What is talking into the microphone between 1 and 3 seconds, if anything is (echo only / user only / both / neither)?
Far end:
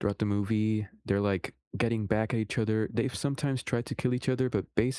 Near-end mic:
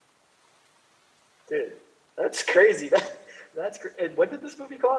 user only